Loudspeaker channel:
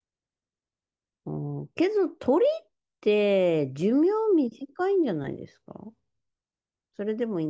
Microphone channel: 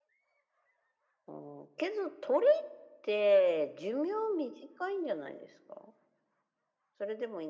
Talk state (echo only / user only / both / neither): echo only